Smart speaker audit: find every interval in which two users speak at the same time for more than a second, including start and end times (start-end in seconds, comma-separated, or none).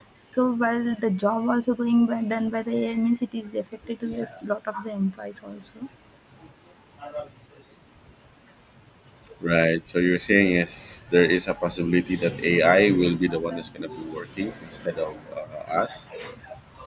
none